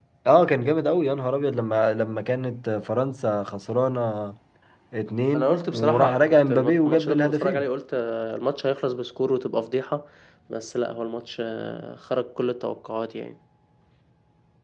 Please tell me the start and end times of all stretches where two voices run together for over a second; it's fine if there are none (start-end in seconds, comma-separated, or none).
5.4-7.7